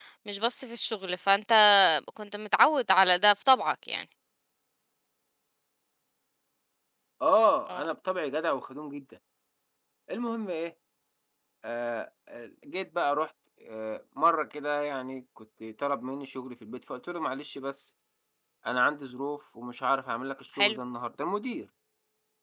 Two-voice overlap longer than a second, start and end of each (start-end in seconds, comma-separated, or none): none